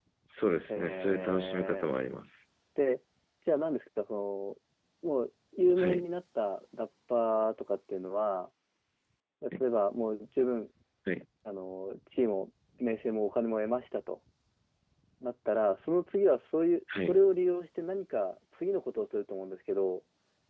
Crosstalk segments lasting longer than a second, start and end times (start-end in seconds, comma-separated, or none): 0.7-1.9